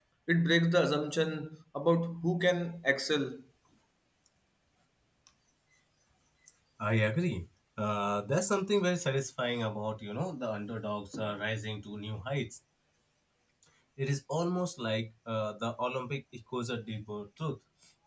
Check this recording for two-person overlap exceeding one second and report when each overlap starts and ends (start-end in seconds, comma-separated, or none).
none